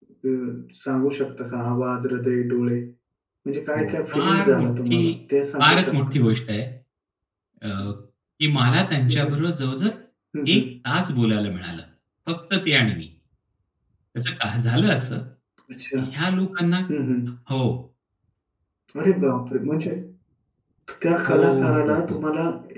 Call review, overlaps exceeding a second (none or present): present